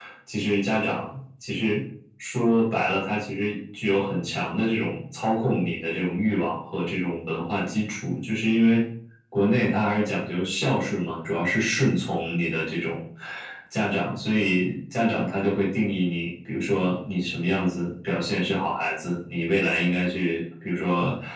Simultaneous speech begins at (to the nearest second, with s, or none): none